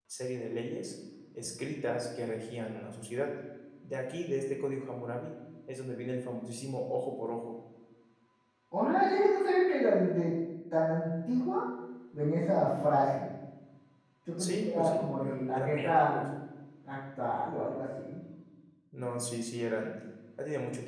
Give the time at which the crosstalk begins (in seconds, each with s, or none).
14.4 s